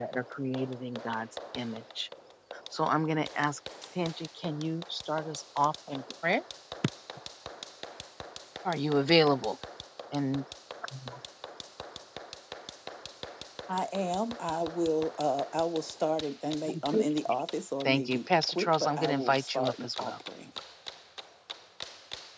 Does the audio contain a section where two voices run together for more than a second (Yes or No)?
Yes